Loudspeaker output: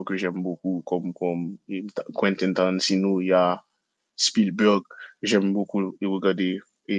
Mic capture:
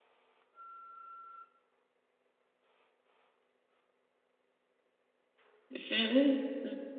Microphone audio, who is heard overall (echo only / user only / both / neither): user only